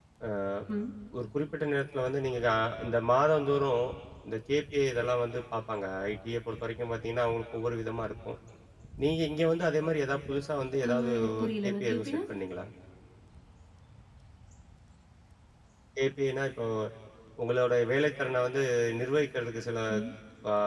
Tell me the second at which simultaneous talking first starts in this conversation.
10.8 s

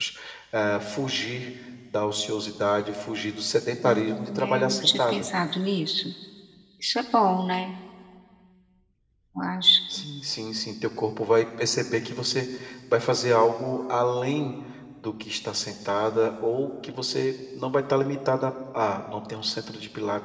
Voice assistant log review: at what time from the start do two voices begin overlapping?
3.8 s

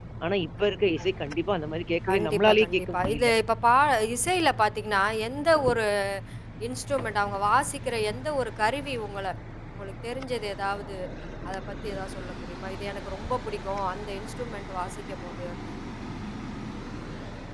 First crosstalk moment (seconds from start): 2.1 s

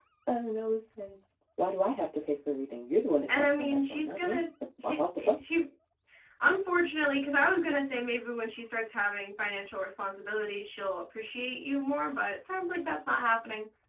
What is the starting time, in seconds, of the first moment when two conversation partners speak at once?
3.3 s

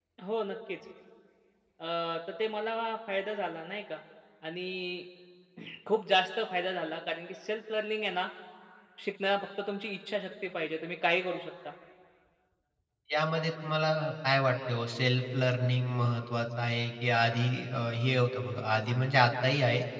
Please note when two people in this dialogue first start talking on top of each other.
none

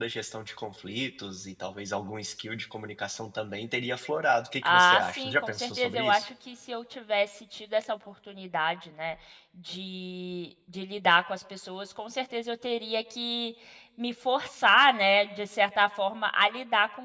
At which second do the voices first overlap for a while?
4.6 s

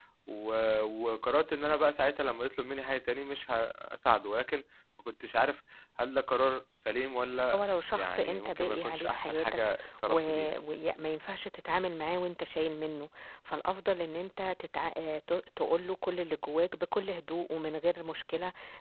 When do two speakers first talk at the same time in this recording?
7.5 s

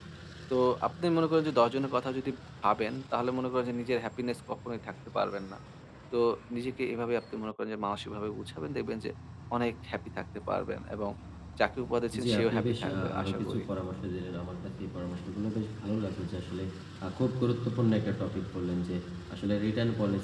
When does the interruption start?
12.2 s

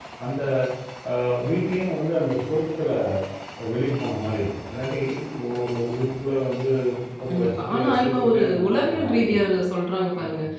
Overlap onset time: 7.3 s

